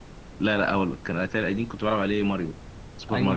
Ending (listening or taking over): taking over